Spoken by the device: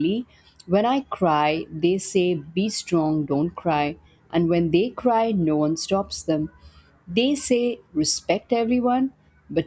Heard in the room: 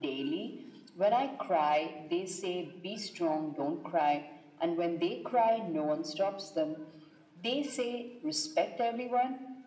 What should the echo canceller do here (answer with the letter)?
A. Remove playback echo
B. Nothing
A